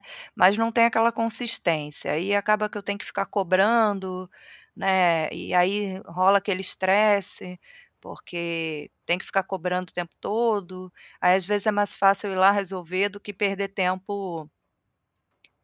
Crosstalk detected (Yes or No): No